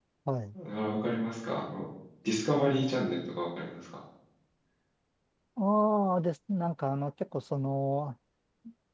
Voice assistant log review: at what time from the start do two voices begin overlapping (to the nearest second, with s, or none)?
none